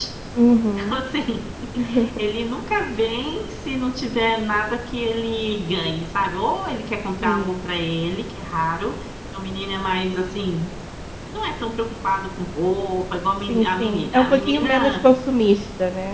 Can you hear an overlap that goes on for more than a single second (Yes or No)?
Yes